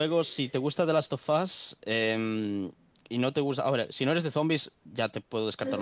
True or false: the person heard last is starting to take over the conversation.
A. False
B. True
B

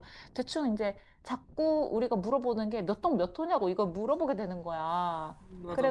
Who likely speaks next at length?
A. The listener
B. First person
B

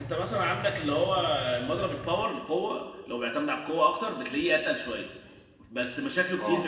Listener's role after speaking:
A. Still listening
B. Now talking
A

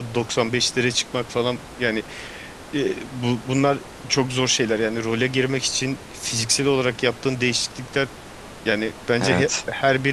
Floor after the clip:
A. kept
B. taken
A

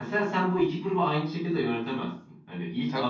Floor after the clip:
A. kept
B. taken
A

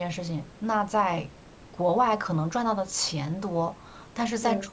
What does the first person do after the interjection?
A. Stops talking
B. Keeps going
B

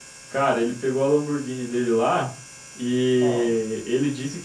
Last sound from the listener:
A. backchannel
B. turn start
A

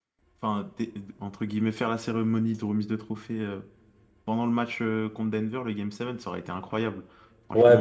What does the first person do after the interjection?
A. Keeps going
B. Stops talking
B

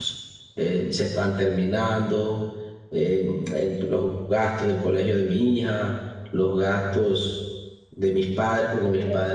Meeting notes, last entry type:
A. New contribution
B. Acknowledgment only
B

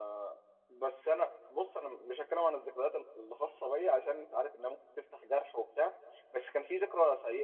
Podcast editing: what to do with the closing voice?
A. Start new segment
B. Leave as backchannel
B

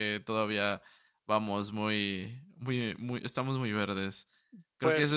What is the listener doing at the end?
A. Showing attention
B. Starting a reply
B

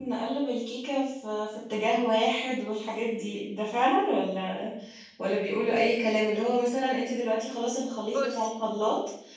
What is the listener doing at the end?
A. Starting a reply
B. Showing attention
B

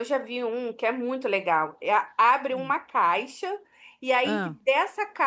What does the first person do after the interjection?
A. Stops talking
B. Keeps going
B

